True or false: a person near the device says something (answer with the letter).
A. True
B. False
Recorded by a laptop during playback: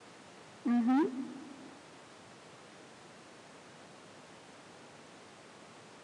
A